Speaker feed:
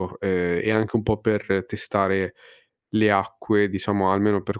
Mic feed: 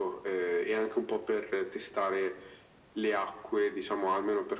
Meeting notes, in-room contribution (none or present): none